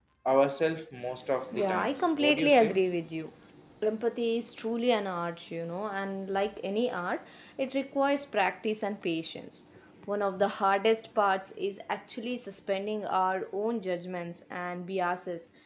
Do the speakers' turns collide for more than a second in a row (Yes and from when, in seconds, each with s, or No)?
Yes, from 1.5 s